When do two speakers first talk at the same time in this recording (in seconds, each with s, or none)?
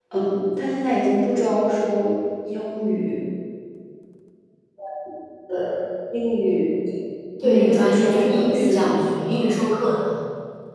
7.4 s